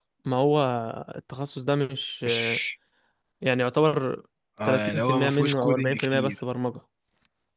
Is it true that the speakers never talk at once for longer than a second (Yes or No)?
No